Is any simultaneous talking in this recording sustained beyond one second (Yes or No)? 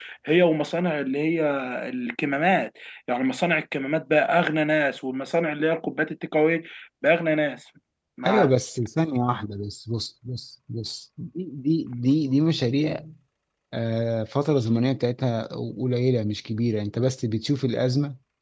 No